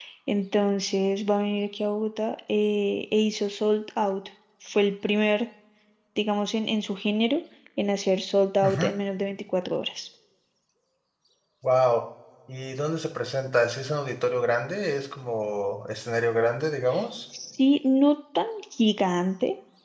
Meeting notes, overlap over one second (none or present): none